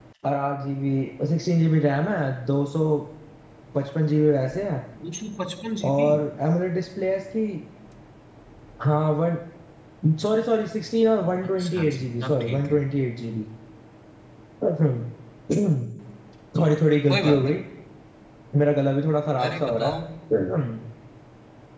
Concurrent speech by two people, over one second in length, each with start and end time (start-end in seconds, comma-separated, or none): 11.6-12.8